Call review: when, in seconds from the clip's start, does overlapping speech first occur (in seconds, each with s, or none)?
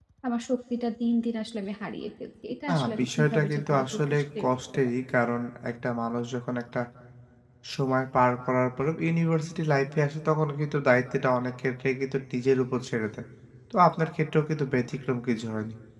2.7 s